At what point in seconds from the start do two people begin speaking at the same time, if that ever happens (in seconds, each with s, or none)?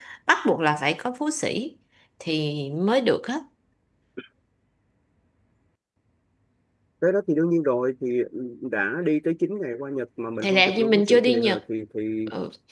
10.4 s